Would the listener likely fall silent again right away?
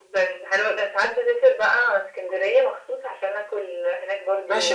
No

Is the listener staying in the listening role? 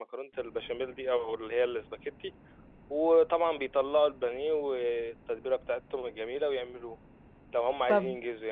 Yes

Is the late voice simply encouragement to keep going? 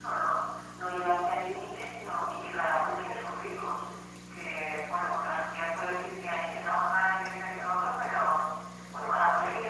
Yes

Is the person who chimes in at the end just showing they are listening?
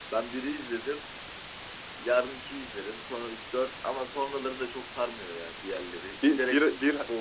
No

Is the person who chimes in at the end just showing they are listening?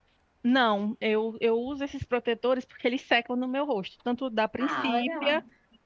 Yes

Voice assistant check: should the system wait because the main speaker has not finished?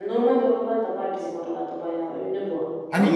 No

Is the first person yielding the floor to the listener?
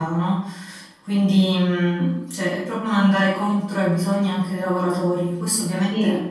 No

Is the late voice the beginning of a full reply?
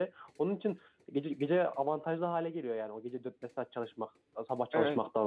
Yes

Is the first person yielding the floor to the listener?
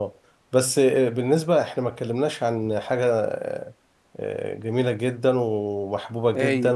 No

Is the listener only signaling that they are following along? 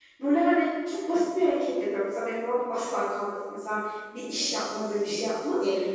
Yes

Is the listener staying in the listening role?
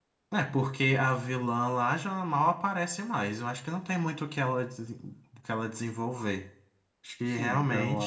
No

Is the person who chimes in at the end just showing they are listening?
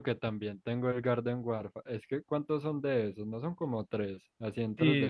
No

